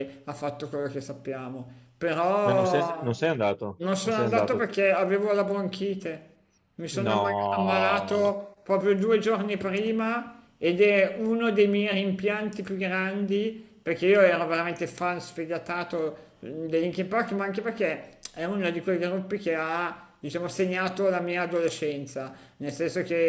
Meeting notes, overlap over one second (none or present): present